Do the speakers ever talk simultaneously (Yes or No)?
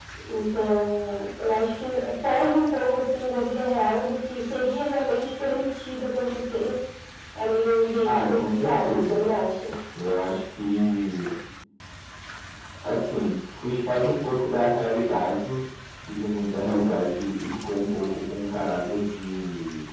Yes